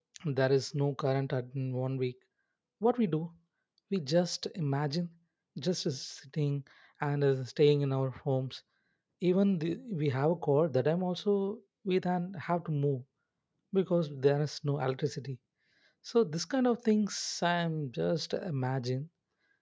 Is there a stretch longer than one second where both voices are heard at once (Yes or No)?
No